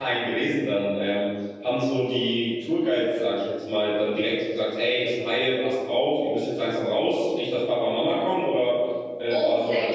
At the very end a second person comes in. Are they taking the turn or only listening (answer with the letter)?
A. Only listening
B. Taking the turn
B